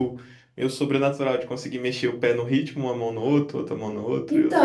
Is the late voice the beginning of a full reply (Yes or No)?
Yes